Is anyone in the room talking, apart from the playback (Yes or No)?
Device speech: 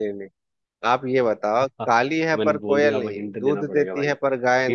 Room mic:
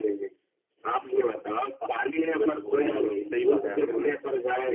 Yes